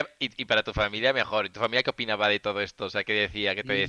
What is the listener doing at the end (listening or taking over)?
taking over